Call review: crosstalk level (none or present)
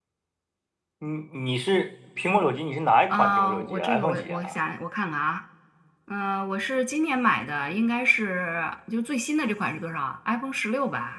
present